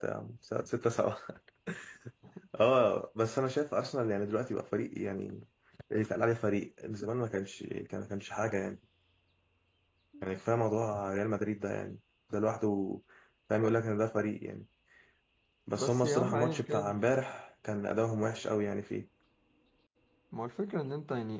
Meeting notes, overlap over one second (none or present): present